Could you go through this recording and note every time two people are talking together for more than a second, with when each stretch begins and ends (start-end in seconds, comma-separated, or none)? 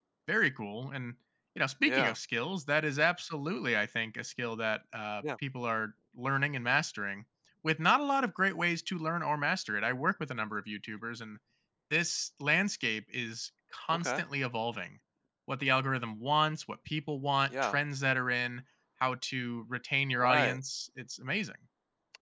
none